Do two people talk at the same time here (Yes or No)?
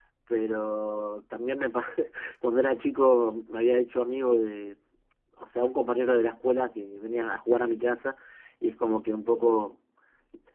No